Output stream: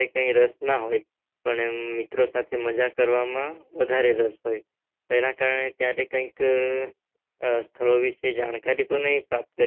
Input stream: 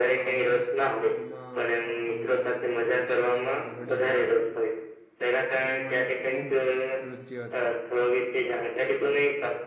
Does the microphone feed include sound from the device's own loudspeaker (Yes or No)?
Yes